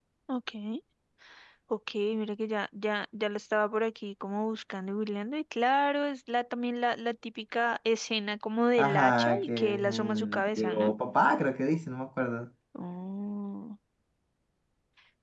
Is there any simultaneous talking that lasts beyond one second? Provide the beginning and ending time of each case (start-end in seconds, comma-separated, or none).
8.8-10.9